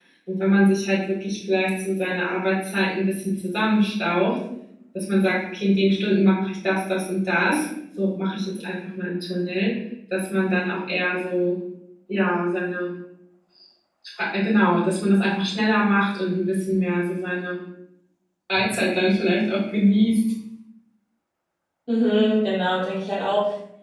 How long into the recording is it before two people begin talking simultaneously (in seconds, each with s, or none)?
none